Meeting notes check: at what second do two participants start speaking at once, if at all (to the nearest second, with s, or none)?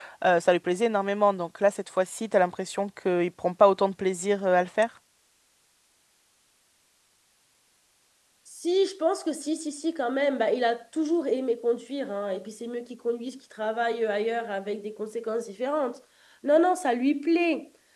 none